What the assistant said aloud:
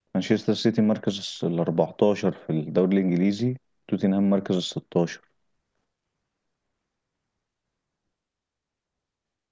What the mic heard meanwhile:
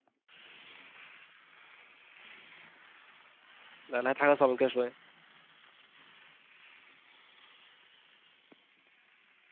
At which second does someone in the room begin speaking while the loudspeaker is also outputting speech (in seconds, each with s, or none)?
3.9 s